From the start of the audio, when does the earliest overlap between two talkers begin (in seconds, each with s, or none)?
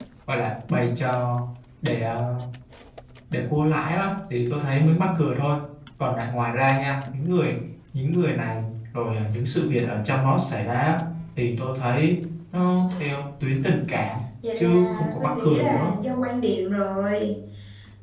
14.4 s